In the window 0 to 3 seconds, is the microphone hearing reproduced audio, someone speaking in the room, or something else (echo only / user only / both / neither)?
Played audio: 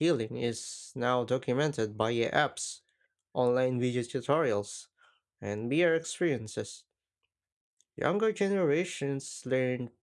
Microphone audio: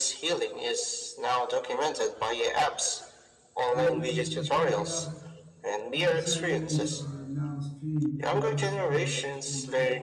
echo only